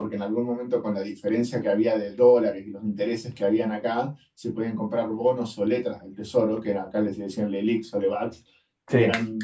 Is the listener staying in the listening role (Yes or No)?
Yes